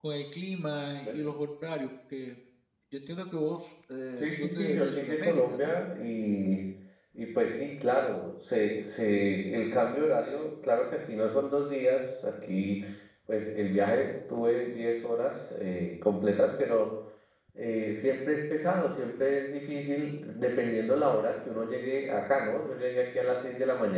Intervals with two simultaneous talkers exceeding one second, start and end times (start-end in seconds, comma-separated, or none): 4.2-5.6